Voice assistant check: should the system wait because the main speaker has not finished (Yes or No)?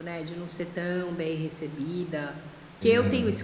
Yes